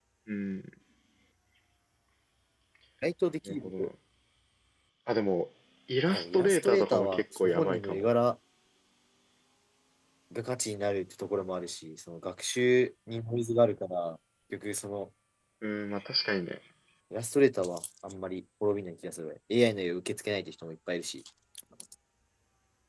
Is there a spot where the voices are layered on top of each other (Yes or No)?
Yes